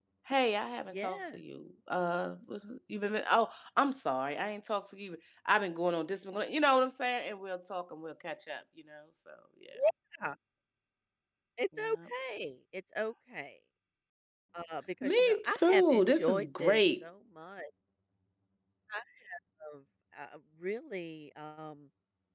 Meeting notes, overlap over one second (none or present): present